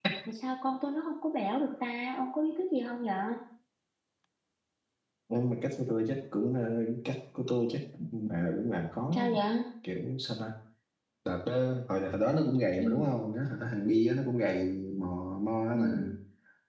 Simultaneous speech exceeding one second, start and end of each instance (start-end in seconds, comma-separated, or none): none